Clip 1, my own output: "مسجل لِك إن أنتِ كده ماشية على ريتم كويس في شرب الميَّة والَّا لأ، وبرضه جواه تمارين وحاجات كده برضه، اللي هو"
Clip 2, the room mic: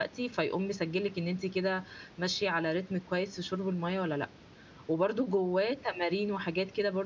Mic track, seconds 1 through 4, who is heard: echo only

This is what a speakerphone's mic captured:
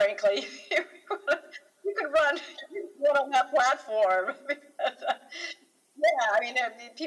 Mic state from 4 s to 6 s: echo only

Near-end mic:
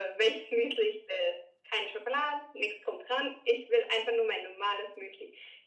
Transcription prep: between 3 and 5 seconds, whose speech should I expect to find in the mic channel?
echo only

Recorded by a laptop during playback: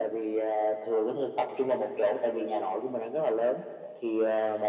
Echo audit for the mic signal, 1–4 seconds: echo only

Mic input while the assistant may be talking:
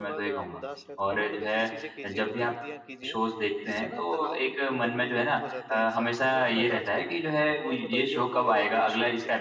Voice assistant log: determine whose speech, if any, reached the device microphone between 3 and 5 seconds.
both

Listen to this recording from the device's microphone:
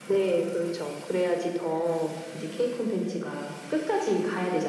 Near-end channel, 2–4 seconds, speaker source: echo only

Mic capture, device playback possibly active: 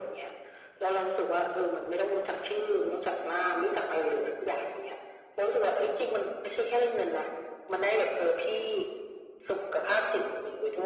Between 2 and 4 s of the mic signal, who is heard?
echo only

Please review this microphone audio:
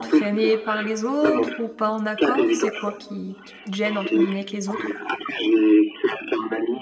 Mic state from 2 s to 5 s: both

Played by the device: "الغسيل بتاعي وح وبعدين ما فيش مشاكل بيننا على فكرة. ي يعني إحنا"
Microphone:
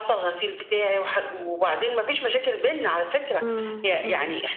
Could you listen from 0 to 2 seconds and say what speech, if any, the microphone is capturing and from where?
echo only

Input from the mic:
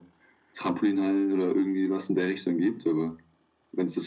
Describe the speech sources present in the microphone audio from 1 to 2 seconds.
echo only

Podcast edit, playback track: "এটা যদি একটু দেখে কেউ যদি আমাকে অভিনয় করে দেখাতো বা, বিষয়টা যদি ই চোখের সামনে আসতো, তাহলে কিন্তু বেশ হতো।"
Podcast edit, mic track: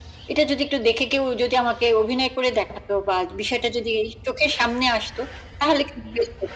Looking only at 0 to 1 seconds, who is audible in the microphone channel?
echo only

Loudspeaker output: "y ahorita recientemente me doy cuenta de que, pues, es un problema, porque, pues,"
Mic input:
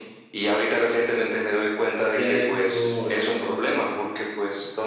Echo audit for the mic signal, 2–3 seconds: both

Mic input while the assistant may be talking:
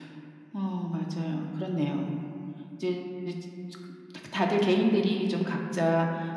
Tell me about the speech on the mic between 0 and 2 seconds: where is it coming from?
echo only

